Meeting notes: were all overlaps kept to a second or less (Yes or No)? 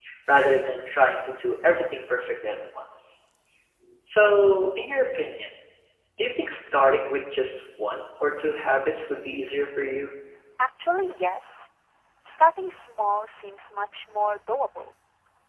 Yes